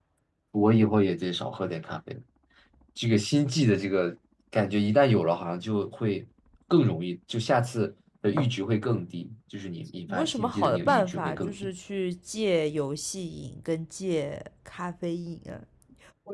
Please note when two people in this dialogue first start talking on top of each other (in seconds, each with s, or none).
10.1 s